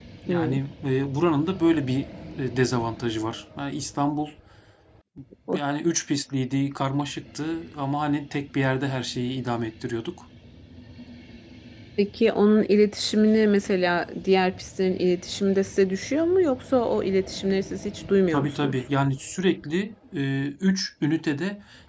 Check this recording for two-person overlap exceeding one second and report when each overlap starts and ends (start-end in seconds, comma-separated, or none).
none